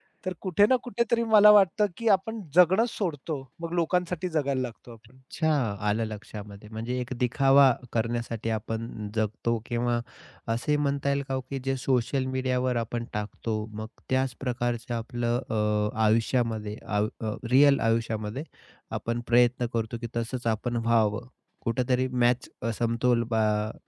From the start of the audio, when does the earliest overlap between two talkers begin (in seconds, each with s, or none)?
none